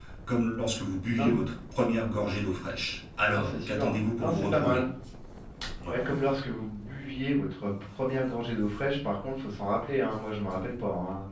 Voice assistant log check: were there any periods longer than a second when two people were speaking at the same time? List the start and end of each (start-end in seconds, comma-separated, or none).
3.3-4.8